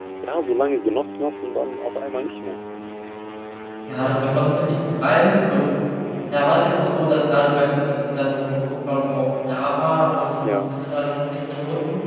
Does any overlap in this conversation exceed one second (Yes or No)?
No